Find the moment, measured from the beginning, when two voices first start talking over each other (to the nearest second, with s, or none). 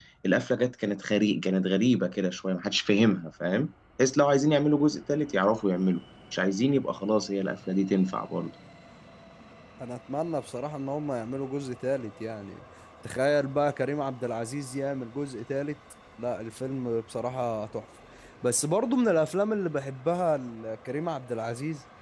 none